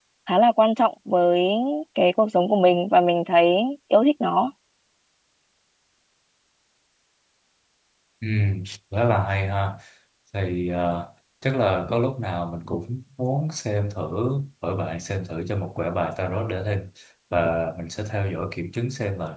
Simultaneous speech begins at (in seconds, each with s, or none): none